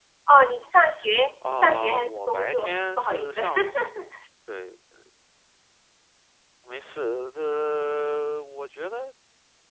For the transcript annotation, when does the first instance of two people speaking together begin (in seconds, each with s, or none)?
1.4 s